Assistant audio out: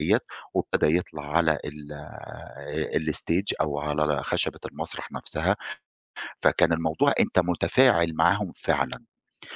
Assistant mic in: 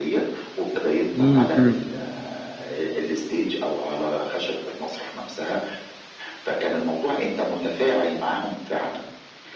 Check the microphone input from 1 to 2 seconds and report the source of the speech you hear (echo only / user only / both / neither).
both